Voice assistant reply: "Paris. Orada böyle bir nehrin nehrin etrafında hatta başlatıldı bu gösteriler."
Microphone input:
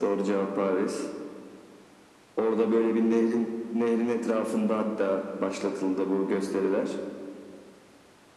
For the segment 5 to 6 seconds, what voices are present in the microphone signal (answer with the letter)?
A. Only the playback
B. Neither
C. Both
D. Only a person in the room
A